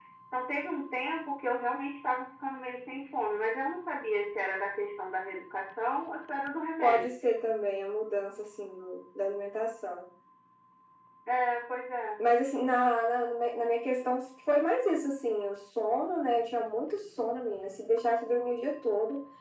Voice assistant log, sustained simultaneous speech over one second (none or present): none